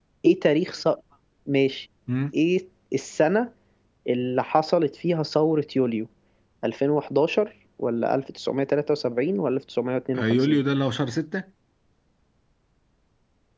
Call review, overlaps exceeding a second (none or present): none